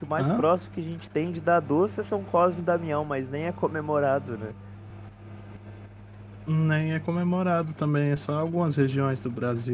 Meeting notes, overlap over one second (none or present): none